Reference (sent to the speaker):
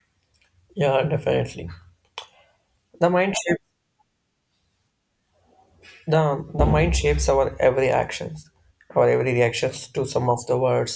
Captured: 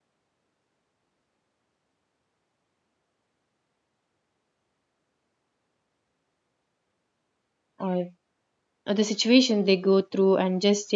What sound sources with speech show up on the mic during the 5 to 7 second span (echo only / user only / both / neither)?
neither